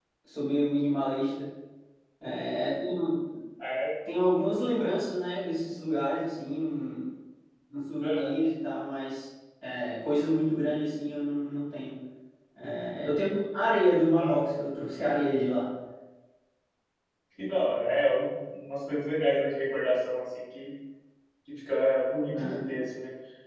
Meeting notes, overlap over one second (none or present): none